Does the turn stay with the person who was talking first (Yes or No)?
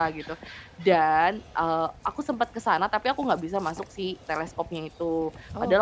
Yes